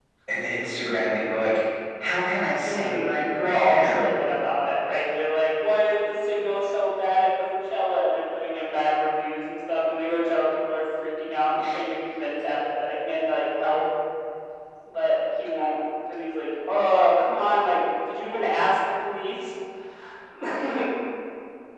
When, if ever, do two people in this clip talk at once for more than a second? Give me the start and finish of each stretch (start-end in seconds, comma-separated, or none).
2.6-4.2